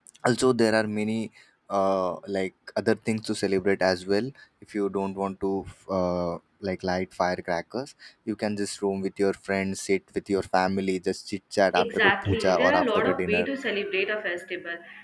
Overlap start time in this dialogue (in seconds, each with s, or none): 11.8 s